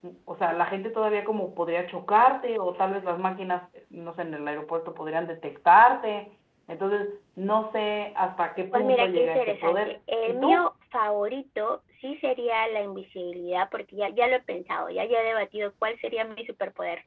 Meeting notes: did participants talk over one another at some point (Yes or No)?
Yes